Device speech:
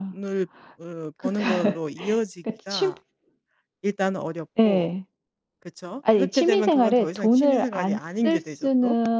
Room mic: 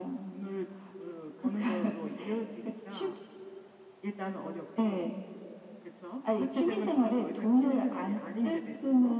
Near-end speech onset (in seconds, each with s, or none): none